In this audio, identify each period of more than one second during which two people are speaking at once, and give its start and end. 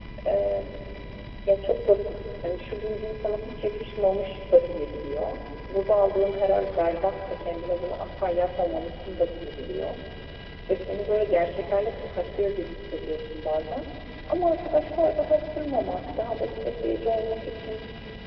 none

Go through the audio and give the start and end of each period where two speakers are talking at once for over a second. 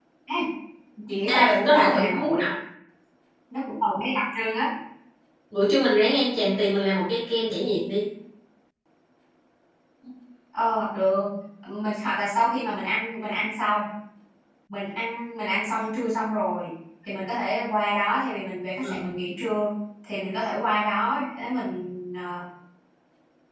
1.3-2.5

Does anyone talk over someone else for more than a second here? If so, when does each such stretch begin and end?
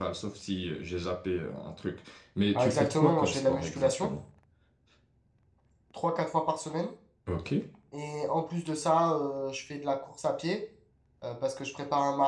2.6-4.1

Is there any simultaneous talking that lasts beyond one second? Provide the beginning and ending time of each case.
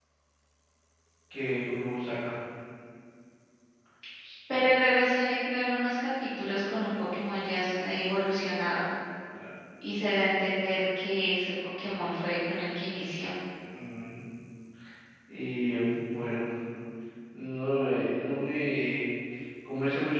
none

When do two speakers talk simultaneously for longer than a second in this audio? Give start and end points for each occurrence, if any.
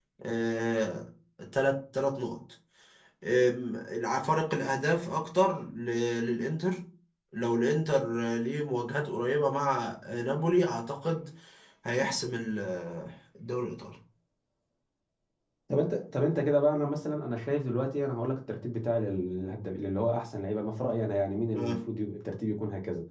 none

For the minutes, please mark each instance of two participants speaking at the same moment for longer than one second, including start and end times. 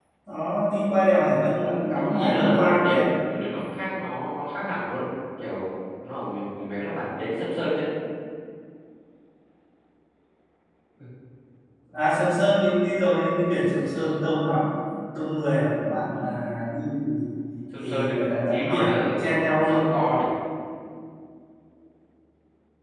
1.3-3.0, 17.8-19.9

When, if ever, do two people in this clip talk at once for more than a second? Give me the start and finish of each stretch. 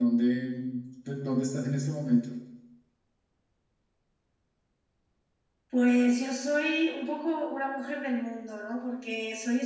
none

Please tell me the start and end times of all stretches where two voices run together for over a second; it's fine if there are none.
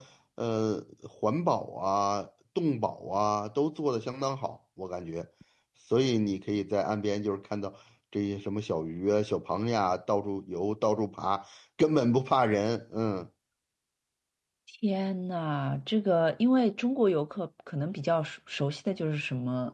none

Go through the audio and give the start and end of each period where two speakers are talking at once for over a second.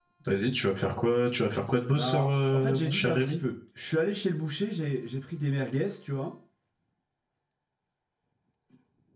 1.9-3.4

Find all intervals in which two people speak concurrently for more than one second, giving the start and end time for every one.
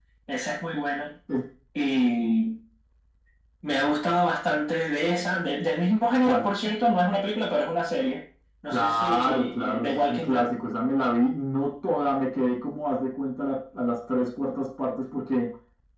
8.7-10.5

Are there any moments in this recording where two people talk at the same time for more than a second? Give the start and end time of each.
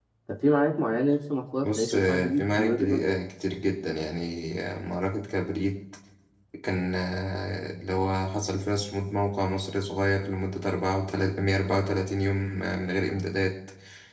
1.6-3.2

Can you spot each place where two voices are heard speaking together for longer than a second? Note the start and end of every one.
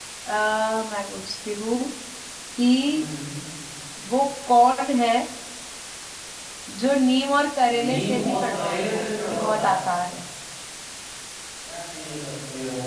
7.7-9.7

